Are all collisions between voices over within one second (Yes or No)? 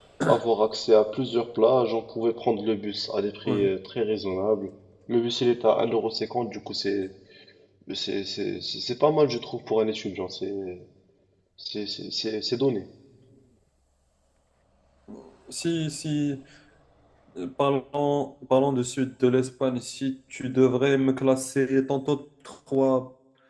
Yes